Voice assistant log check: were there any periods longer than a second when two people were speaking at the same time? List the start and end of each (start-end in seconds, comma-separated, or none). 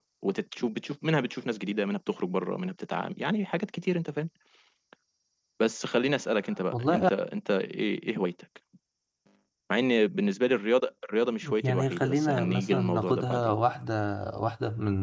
11.6-13.5